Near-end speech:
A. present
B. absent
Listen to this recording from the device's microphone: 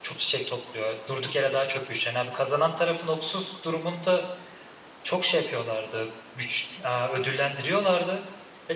A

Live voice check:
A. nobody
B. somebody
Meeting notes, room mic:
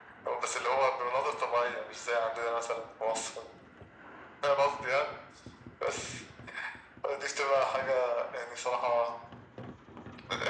A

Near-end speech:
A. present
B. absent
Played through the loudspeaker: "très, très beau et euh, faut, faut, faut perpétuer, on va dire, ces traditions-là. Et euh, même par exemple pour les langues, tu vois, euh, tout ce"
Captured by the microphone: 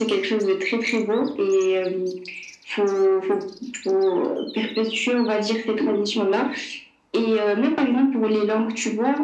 B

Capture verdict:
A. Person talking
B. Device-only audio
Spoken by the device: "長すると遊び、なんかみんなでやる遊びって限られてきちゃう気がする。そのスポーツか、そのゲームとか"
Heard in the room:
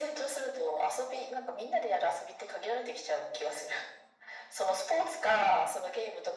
B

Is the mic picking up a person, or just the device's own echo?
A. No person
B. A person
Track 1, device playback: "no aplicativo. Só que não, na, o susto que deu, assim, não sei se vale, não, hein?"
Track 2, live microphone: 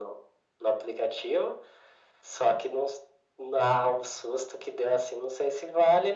A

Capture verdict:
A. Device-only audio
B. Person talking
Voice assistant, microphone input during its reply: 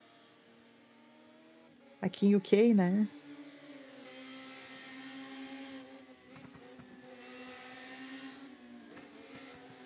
B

